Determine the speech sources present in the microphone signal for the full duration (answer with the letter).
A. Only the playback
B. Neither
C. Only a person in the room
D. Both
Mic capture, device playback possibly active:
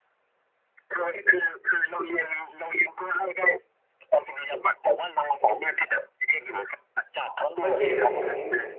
D